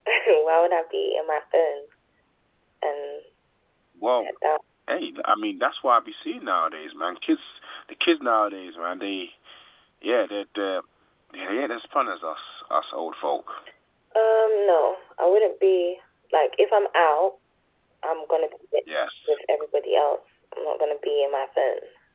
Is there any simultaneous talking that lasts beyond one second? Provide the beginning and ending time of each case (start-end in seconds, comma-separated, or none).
none